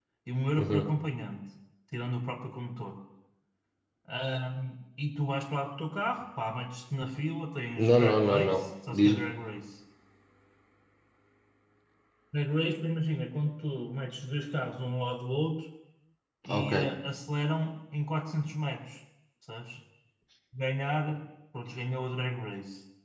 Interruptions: present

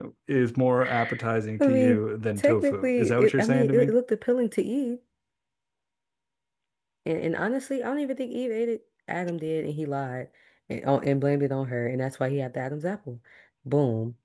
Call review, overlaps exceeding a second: present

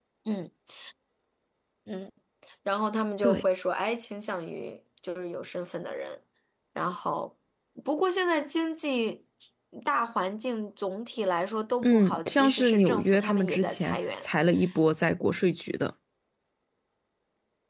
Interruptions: present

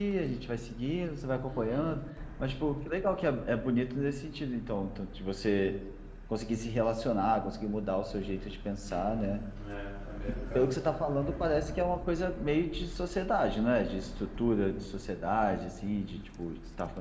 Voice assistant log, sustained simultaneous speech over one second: none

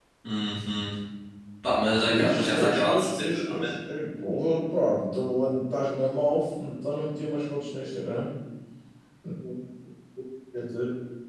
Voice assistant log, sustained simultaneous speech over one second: present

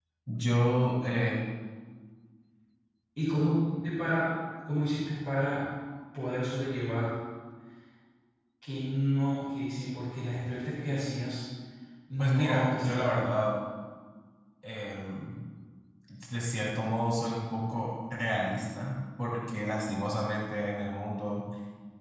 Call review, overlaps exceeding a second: present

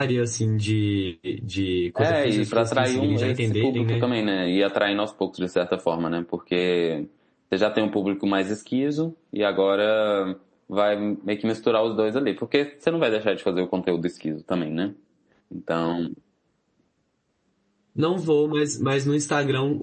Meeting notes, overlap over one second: present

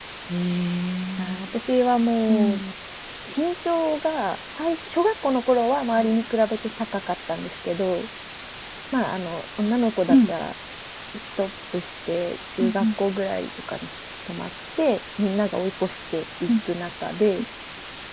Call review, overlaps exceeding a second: none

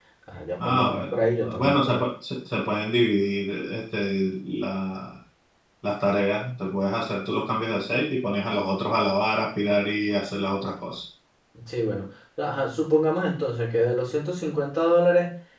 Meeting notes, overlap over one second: present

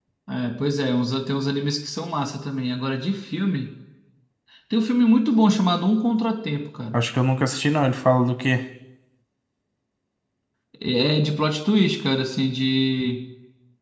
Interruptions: none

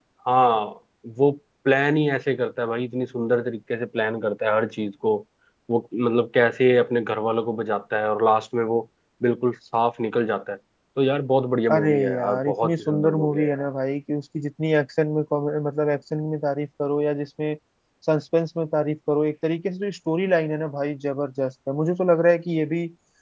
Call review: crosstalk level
present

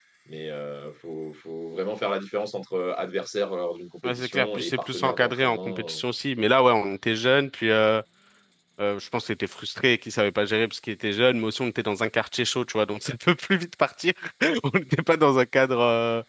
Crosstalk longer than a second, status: present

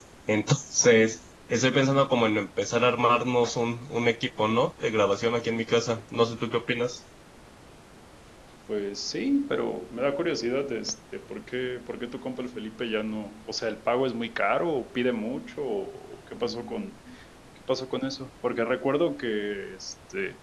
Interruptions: none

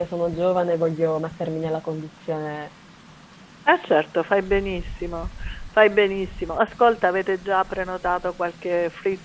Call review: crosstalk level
none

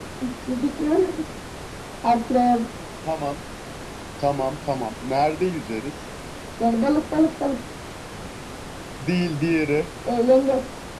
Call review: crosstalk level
none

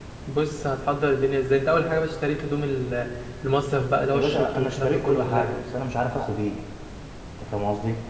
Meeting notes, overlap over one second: present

